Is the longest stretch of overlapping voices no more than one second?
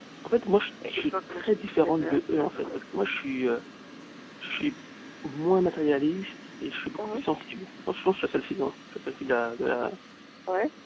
No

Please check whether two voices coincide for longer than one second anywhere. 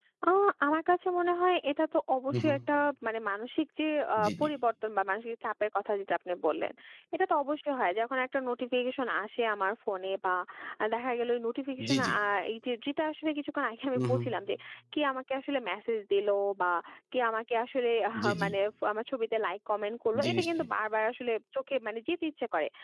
No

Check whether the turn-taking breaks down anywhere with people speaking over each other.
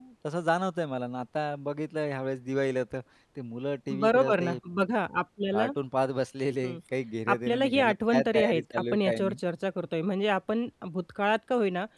Yes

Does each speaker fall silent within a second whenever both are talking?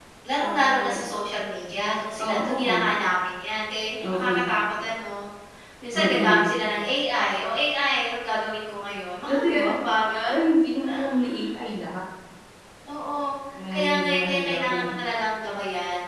No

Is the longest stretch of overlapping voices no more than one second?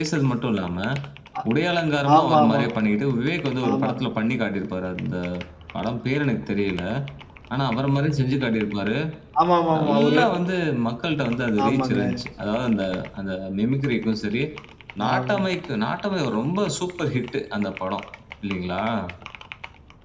Yes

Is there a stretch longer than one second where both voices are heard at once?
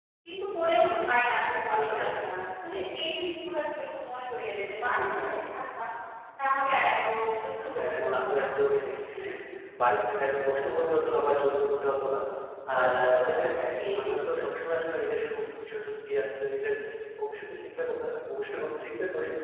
Yes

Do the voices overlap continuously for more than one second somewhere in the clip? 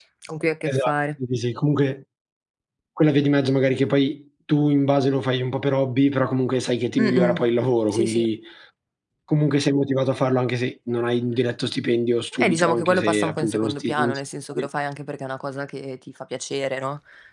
Yes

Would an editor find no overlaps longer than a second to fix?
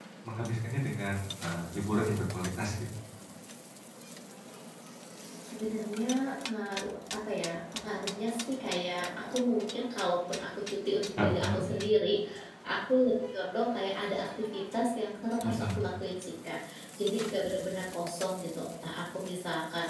Yes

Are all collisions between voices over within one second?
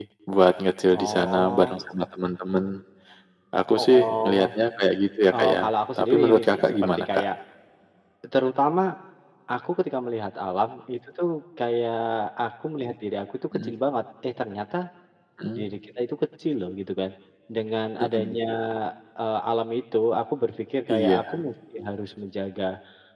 No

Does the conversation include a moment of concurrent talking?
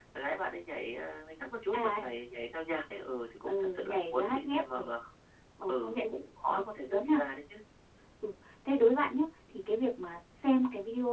Yes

